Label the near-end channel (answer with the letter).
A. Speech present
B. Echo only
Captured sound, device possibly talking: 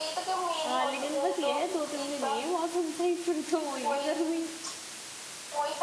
A